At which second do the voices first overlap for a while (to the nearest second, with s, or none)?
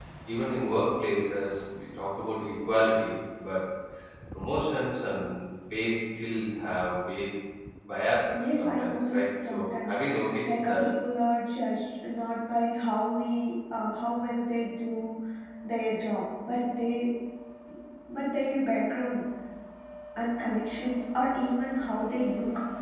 8 s